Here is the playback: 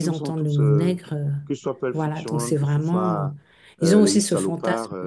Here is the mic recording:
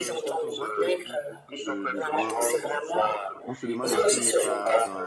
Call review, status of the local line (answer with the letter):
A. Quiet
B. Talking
B